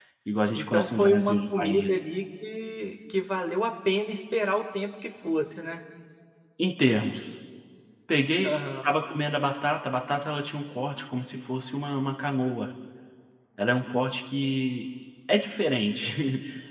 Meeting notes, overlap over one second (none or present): present